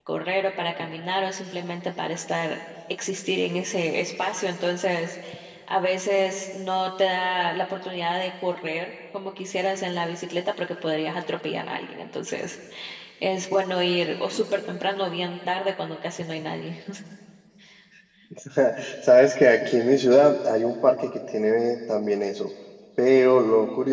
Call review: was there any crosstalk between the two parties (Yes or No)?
No